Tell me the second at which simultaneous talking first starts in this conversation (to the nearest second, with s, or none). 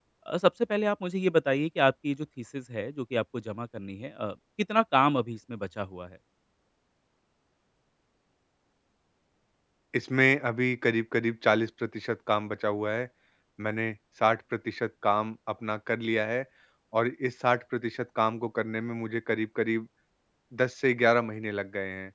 none